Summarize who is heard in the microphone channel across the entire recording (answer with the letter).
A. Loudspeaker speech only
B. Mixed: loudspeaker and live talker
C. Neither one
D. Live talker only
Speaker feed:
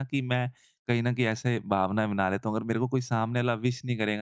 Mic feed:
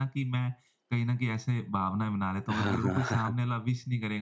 B